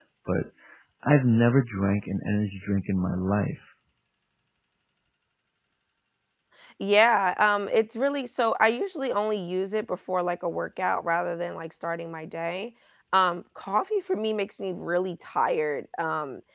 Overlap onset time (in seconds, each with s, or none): none